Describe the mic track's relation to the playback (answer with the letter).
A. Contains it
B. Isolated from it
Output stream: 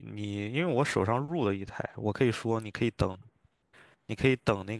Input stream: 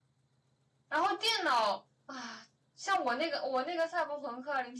B